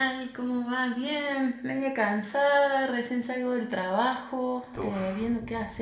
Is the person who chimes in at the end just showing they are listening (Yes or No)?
Yes